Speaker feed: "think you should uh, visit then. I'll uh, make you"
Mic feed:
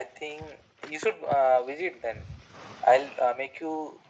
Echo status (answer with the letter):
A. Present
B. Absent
A